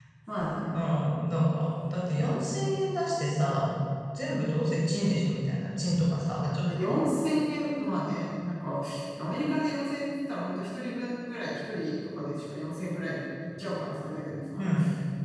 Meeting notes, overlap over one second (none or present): none